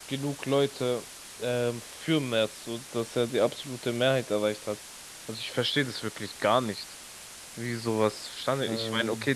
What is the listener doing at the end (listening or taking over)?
listening